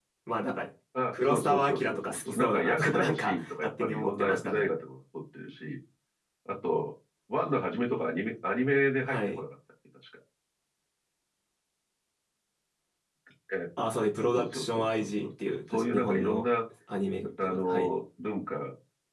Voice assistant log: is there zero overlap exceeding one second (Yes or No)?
No